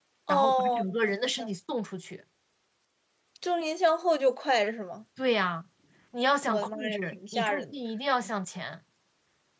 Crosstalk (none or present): present